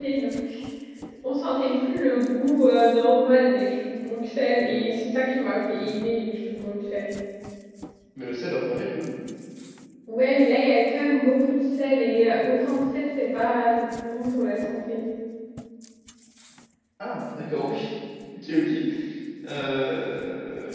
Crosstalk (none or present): none